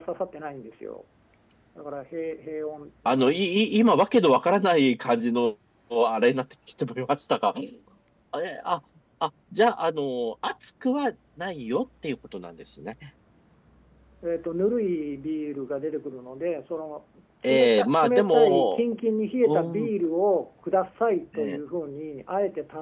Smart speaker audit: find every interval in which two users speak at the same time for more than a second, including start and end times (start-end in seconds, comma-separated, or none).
17.5-18.8